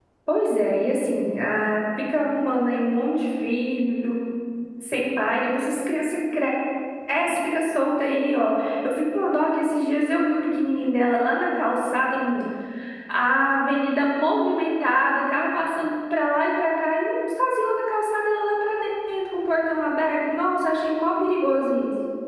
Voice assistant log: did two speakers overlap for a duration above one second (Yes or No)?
No